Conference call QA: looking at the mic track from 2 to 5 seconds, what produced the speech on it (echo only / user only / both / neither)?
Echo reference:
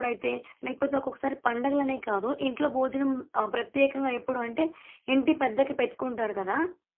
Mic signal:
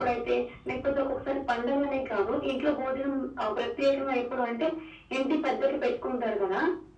echo only